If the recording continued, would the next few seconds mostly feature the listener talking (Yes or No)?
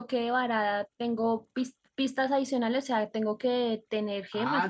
Yes